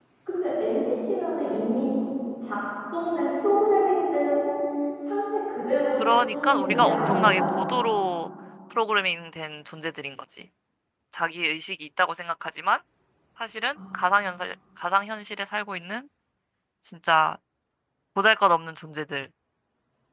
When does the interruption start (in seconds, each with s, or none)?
6.0 s